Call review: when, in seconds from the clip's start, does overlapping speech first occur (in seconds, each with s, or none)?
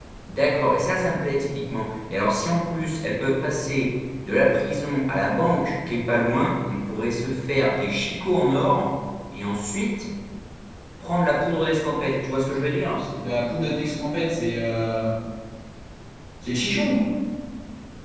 none